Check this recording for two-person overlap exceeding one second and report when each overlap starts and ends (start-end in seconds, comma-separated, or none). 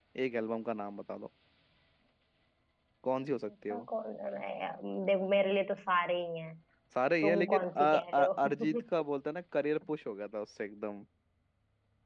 7.2-8.7